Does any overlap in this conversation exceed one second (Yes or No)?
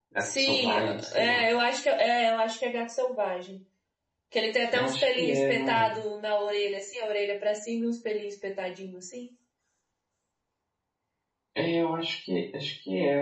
Yes